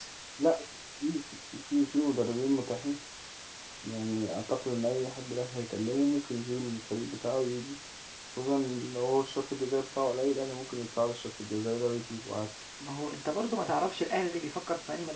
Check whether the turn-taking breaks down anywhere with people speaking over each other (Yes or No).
No